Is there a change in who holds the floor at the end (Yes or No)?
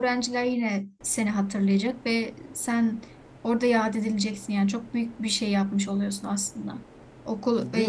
Yes